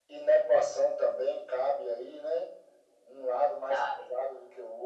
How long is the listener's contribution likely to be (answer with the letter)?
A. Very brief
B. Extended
A